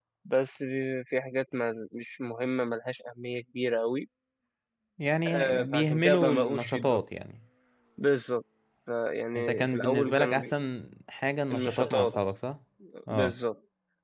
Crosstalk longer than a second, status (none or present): present